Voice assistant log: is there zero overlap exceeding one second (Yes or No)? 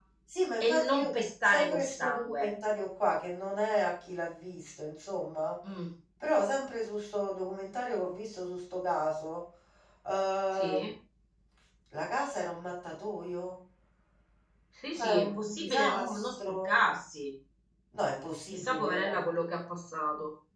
No